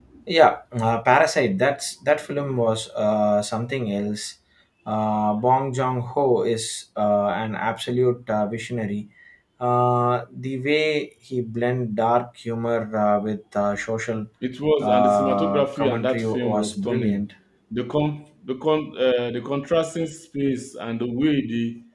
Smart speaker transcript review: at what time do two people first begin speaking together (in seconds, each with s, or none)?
14.8 s